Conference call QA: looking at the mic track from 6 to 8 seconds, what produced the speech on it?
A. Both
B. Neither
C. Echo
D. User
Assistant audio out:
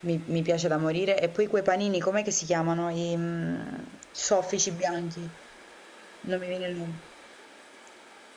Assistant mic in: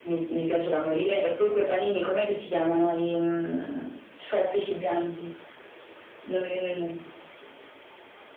C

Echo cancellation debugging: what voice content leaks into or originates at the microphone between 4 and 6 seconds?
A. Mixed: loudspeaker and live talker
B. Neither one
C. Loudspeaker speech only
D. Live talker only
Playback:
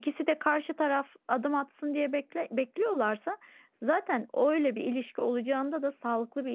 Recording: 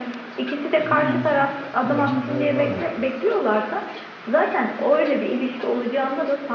C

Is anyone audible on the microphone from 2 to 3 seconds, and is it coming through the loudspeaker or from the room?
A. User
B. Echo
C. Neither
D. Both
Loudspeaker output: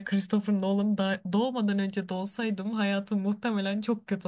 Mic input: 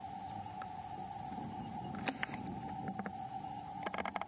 C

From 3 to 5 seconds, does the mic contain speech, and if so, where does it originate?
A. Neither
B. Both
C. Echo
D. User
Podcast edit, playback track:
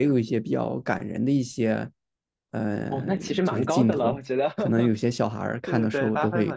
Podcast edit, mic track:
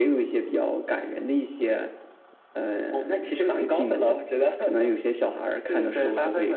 C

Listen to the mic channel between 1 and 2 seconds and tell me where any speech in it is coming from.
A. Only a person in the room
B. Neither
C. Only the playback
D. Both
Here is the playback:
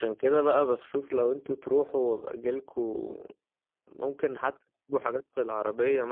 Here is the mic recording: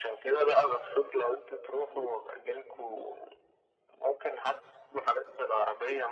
C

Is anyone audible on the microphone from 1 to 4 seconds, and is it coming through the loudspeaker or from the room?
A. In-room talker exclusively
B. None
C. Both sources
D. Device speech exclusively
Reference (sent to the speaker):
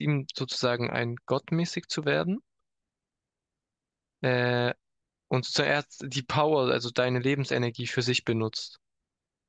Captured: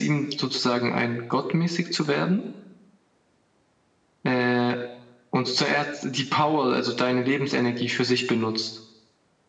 D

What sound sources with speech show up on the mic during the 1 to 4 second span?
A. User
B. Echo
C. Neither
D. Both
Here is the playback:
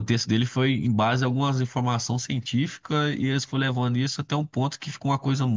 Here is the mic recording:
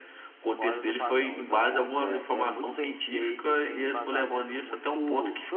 D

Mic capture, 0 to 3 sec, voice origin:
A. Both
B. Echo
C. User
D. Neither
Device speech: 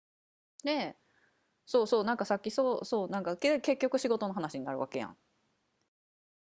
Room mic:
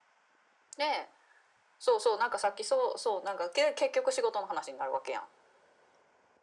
B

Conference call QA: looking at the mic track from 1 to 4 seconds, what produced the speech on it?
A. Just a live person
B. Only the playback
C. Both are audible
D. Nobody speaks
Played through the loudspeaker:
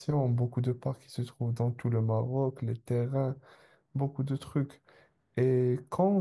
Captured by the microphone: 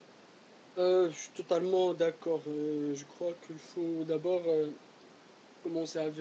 A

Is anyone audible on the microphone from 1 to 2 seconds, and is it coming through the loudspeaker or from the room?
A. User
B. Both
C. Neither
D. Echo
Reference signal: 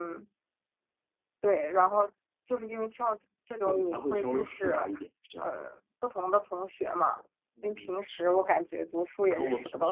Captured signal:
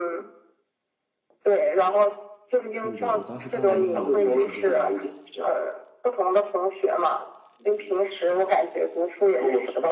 D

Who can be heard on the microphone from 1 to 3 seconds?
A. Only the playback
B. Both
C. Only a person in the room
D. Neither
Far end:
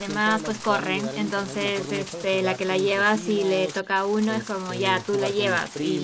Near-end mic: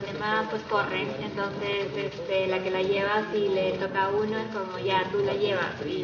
A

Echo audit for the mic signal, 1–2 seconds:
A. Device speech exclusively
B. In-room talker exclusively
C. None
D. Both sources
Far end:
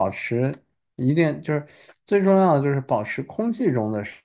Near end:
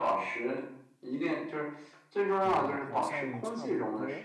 A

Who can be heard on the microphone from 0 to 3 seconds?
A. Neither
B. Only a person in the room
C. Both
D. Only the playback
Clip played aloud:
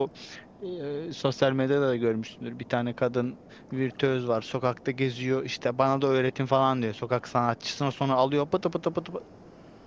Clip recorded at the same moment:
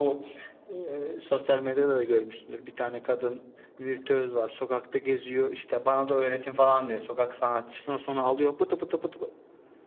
D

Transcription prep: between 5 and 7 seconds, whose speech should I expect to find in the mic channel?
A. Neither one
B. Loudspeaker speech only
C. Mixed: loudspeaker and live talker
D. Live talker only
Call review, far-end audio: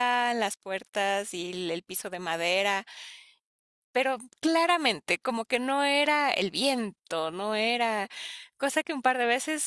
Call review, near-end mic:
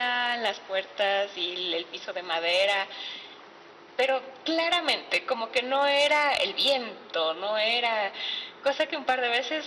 B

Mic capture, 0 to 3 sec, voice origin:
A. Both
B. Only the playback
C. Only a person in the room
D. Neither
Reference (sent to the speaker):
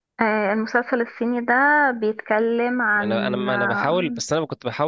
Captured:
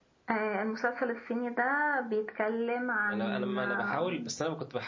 B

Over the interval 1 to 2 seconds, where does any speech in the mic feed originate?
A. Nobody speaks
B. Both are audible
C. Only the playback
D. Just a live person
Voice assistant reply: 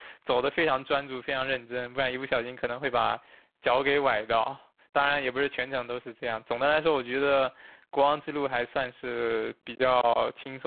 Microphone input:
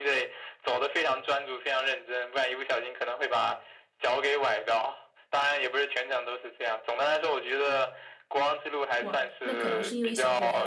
C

